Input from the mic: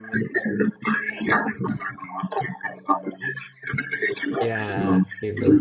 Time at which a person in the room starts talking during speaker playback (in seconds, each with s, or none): 4.4 s